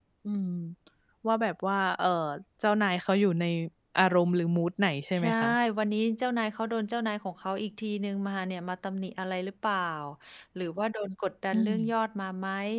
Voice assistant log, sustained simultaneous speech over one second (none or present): none